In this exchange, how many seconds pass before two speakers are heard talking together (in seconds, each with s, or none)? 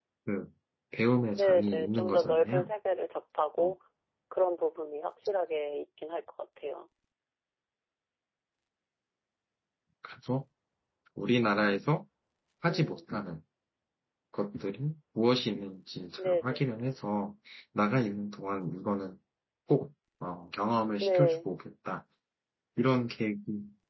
1.3 s